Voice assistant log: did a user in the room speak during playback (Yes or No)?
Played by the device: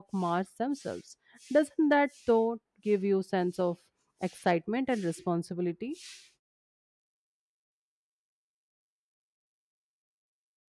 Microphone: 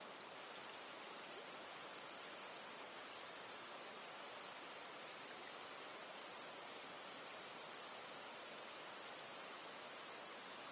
No